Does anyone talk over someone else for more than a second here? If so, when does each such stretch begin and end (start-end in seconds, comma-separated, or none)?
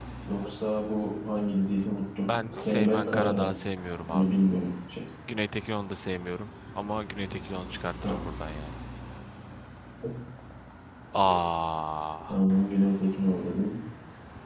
2.2-3.5